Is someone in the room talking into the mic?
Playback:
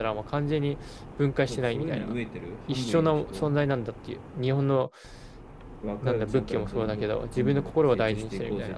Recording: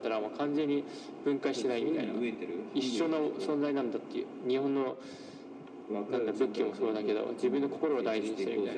No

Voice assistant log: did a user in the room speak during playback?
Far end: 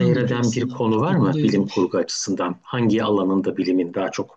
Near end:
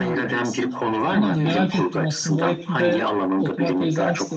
Yes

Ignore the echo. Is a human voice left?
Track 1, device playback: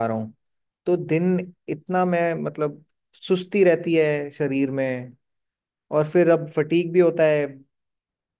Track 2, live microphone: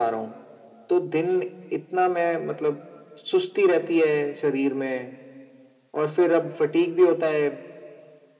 No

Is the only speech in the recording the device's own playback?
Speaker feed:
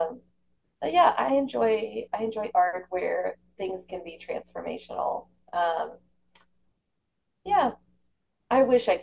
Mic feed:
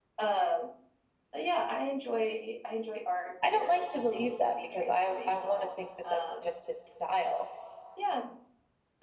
No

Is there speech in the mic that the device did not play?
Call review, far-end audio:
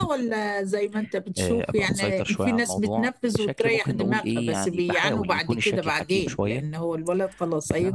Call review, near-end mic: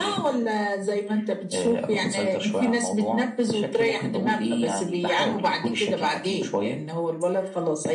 No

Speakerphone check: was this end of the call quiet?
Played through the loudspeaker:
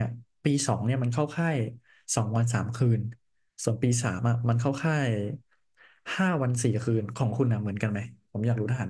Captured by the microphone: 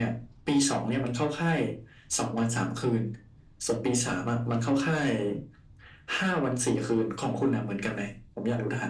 Yes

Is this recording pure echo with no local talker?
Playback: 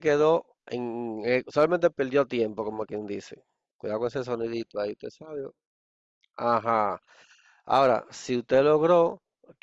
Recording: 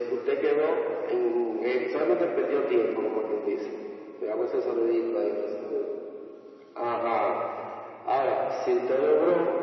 Yes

